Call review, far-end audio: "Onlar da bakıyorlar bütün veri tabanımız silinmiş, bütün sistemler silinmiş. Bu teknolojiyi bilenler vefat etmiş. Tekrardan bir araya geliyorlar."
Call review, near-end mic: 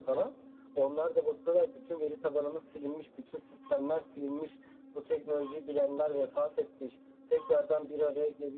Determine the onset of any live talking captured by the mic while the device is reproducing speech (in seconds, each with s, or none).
none